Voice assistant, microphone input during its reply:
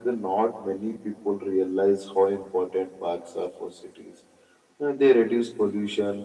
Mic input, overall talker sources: echo only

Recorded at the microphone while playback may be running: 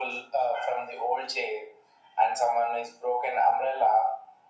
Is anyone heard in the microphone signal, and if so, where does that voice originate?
echo only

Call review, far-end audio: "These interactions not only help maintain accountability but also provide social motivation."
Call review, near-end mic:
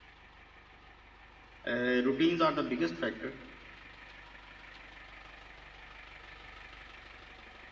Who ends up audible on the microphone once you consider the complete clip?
user only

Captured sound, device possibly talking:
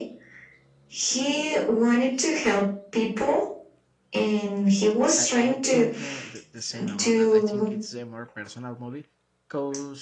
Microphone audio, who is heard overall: both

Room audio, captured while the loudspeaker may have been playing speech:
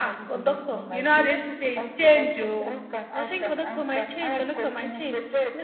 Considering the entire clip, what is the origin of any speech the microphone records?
echo only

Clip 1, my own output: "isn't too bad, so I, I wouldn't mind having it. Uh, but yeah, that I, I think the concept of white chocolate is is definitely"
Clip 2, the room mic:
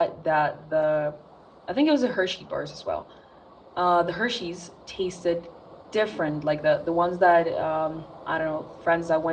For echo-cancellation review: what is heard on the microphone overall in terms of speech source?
user only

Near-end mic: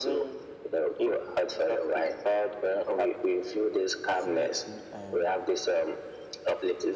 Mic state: both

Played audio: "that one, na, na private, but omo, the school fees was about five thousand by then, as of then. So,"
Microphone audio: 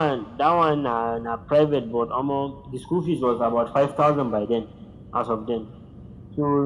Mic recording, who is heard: echo only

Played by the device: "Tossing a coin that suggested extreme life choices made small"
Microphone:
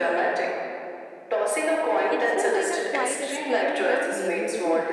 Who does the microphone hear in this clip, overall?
both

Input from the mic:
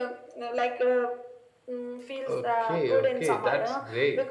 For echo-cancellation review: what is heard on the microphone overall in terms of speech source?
both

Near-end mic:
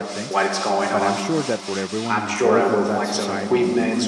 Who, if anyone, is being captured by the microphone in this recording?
both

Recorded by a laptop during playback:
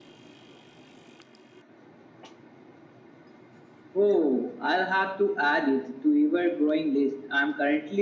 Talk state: echo only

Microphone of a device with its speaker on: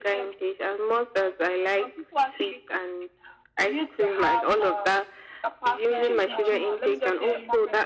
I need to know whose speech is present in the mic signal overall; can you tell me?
both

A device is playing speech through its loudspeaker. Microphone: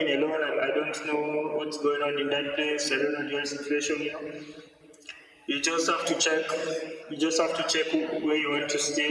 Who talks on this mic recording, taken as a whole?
echo only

